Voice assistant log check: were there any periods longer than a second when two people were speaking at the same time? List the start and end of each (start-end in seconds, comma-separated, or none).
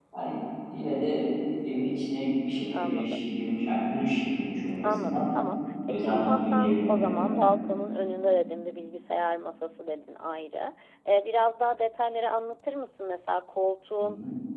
5.9-7.4